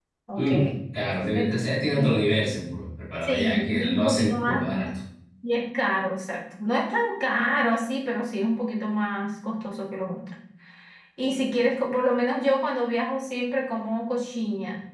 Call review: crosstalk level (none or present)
present